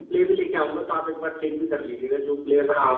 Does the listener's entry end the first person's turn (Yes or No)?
Yes